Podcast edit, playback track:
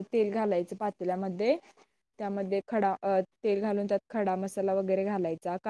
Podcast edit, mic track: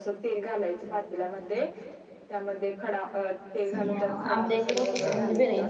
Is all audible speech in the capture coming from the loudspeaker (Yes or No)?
No